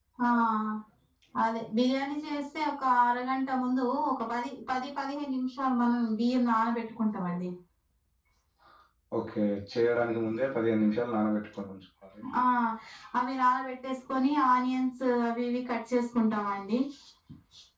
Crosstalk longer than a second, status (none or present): none